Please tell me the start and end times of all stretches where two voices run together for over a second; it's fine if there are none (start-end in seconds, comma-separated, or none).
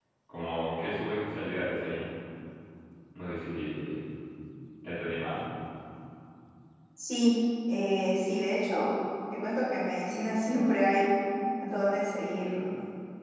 none